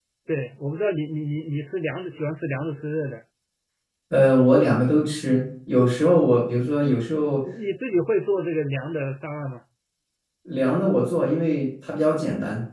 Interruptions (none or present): none